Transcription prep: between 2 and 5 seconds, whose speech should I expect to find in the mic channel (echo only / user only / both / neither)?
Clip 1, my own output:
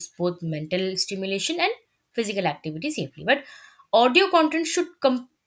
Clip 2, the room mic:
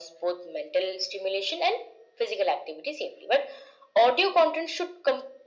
echo only